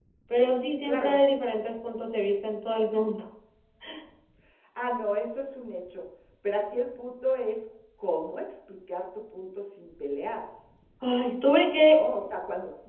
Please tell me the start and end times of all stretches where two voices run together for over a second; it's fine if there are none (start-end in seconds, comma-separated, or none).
none